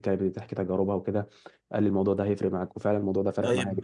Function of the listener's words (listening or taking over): taking over